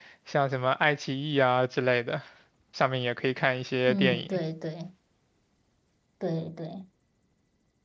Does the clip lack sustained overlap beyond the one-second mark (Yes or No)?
Yes